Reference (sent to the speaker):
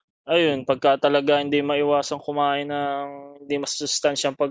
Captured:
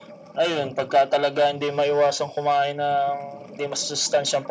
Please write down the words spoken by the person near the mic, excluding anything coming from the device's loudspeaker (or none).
none